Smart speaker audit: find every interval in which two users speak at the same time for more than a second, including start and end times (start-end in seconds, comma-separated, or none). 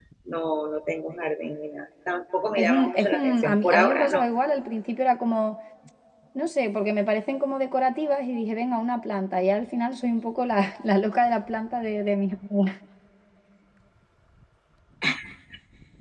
2.6-4.3